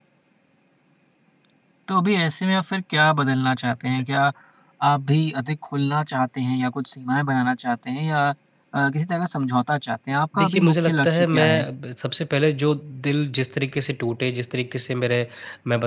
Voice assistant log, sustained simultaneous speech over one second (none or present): present